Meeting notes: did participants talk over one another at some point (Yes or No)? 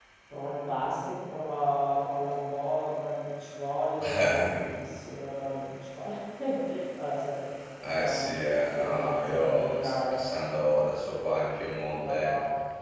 Yes